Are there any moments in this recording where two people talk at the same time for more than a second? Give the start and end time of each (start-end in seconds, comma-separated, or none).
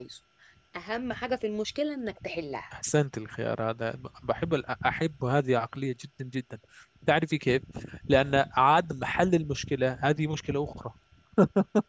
none